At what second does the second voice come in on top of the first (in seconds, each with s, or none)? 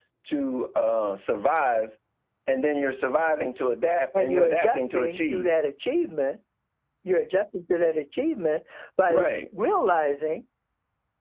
4.1 s